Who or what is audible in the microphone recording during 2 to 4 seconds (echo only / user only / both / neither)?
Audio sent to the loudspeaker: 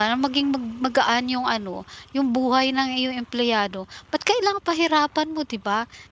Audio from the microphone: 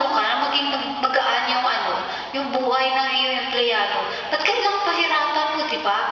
echo only